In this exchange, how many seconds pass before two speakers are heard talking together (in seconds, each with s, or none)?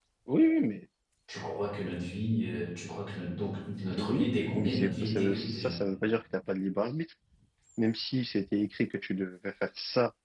3.9 s